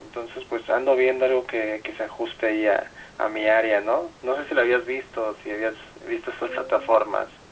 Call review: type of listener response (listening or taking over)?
taking over